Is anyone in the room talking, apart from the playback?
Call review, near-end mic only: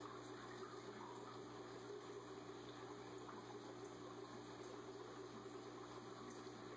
No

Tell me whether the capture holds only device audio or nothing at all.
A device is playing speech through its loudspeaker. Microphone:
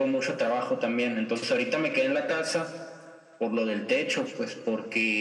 Yes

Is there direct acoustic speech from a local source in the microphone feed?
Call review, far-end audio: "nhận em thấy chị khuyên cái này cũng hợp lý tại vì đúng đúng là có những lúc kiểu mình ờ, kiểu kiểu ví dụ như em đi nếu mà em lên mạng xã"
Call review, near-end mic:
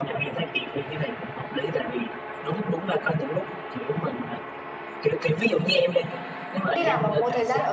Yes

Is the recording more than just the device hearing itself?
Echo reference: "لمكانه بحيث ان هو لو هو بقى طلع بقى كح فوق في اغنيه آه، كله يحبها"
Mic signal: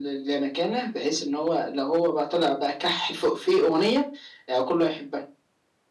No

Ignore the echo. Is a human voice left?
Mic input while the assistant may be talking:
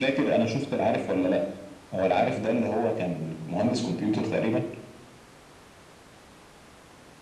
No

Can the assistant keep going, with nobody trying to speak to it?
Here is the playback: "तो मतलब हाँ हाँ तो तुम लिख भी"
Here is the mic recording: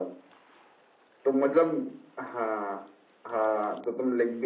Yes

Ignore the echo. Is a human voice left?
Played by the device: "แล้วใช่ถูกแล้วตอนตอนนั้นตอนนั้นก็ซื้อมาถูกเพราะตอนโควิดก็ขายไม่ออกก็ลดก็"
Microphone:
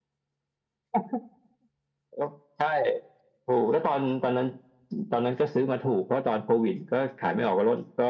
No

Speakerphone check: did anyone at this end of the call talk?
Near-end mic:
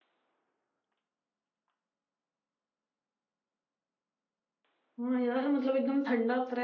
Yes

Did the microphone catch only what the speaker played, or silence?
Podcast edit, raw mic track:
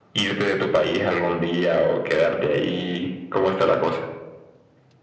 Yes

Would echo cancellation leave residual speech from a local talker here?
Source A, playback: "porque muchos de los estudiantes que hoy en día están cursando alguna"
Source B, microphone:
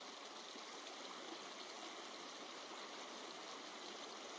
No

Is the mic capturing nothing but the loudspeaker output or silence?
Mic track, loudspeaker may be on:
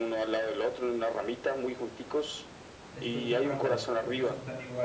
No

